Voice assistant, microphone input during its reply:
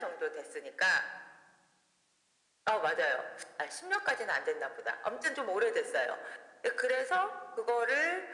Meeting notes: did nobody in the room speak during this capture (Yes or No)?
Yes